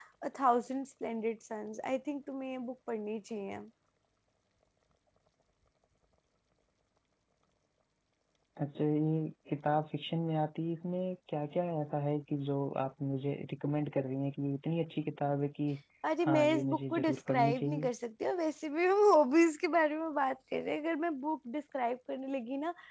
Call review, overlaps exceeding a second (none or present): present